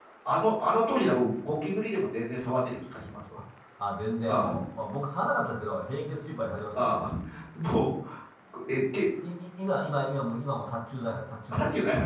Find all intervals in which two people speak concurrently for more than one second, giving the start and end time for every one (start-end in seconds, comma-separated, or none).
none